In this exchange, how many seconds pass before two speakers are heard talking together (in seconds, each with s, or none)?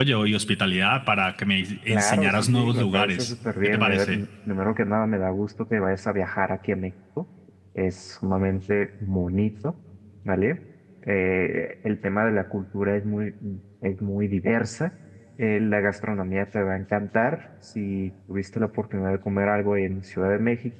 1.9 s